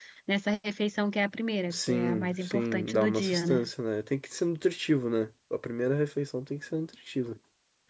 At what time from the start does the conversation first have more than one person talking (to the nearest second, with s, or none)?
2 s